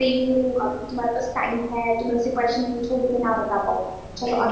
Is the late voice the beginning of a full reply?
Yes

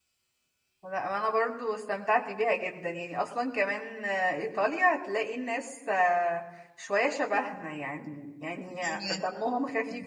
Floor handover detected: No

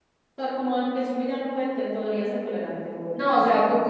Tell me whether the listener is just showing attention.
No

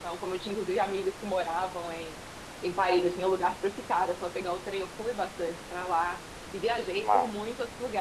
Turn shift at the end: No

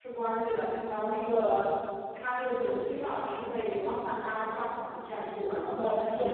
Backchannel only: Yes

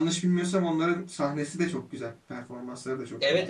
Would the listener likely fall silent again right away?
No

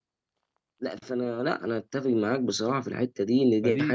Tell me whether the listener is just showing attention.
No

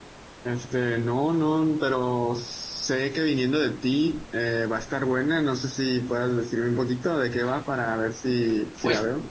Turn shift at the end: Yes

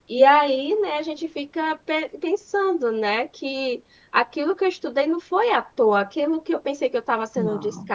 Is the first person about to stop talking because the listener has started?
No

